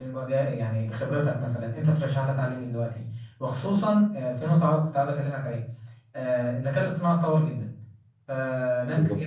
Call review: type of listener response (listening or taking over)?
listening